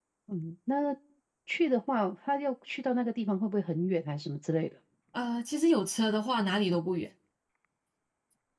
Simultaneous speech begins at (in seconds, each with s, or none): none